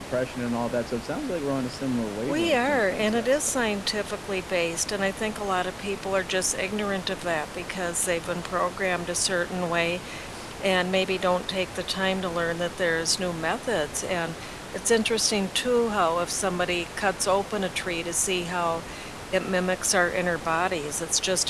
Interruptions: present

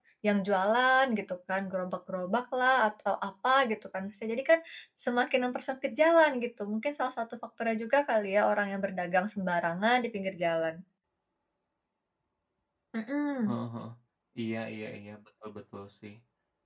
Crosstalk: none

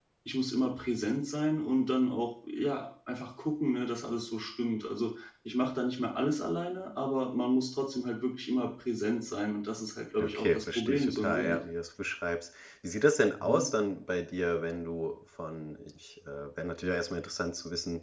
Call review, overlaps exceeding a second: present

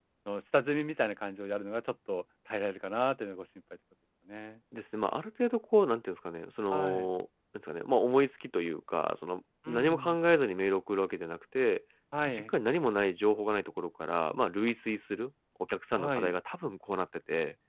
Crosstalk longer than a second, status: none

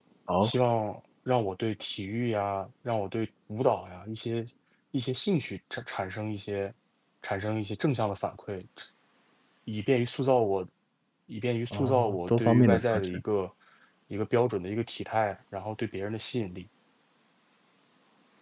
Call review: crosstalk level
present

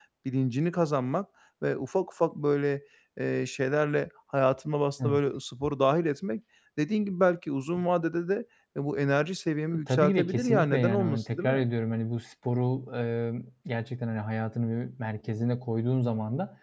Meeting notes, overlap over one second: present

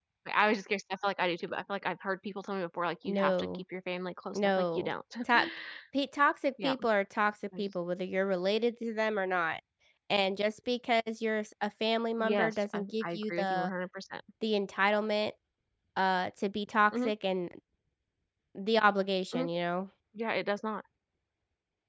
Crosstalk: present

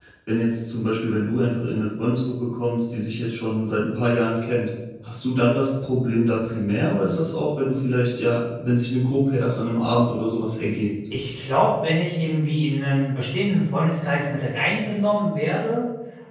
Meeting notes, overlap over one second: none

